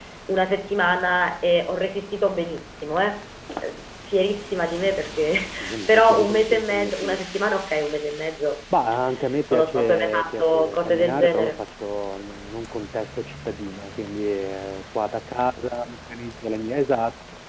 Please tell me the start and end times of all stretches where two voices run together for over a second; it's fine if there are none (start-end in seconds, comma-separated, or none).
5.9-7.2, 9.5-11.5